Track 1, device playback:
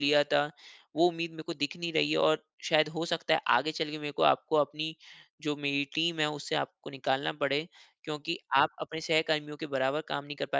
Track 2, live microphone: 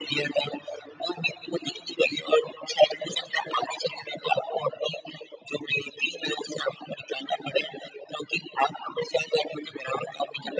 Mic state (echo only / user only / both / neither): echo only